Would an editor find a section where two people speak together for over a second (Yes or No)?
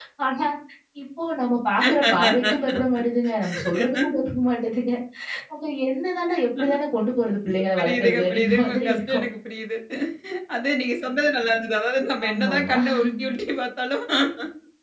Yes